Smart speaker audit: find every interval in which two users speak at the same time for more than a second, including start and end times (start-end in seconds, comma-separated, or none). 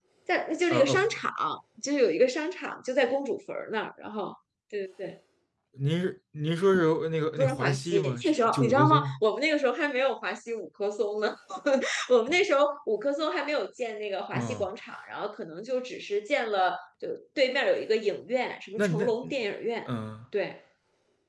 7.4-9.2